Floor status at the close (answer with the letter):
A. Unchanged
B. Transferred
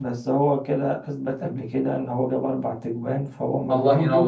B